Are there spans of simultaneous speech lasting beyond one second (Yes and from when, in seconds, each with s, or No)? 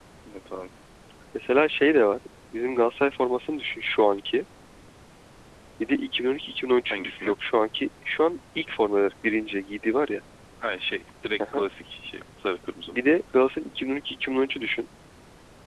No